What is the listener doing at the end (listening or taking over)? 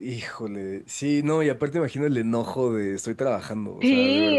taking over